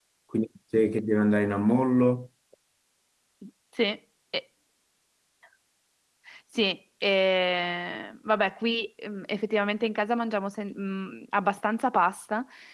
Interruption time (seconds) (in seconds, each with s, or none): none